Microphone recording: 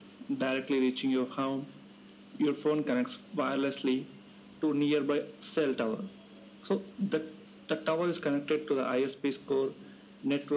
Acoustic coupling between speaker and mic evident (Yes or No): Yes